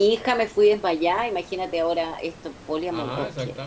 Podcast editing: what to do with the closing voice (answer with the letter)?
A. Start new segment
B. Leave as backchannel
A